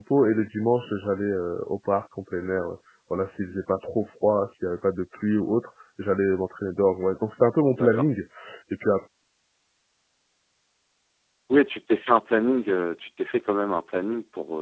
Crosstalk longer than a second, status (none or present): none